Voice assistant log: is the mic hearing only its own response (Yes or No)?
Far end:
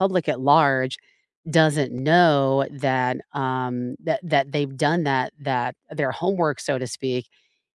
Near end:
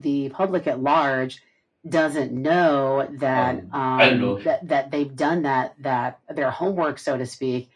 No